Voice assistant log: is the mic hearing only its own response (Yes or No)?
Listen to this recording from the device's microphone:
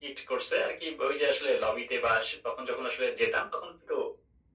Yes